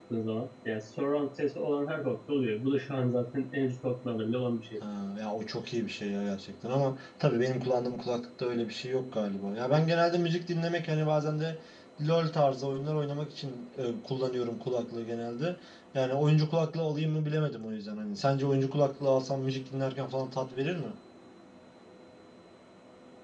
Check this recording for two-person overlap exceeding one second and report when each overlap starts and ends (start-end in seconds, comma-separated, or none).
none